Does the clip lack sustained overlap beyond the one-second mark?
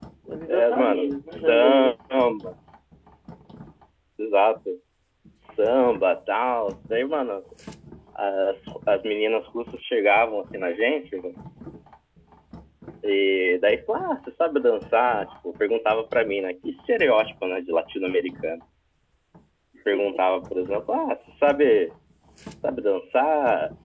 No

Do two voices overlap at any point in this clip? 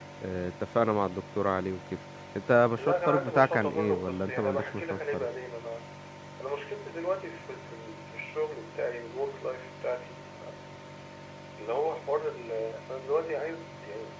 Yes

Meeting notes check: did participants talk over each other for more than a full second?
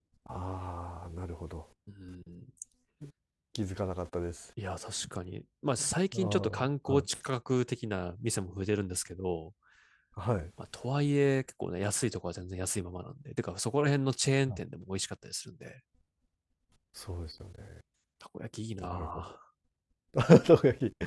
No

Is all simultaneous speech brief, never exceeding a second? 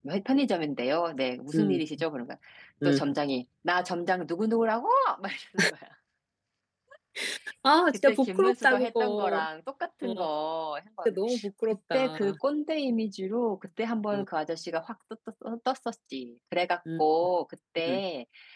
No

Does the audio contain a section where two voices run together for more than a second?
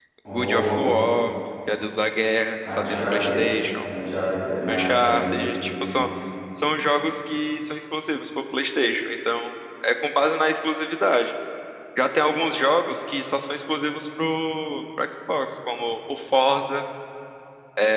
Yes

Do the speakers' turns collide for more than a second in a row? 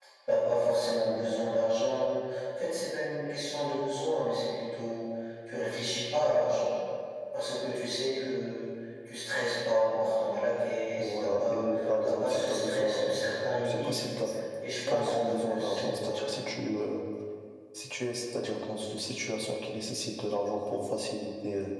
Yes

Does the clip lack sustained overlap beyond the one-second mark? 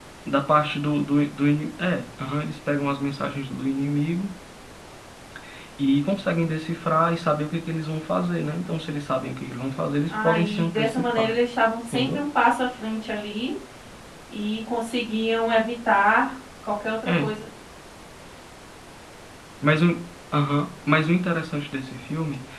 No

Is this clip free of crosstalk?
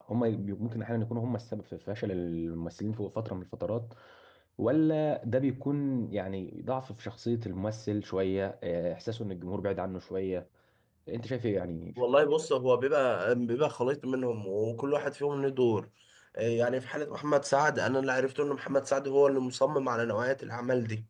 Yes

